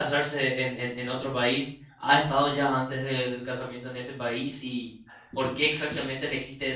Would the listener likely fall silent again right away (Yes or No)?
Yes